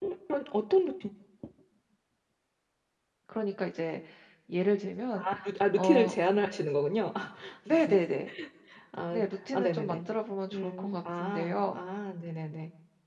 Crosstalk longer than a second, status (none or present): present